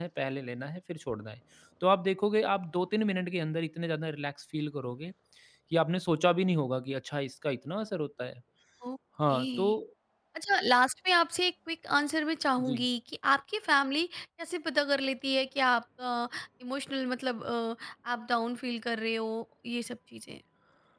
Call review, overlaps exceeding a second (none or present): none